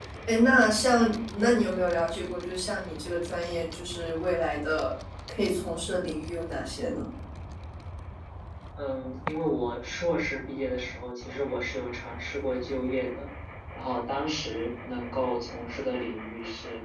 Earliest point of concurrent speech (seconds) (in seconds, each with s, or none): none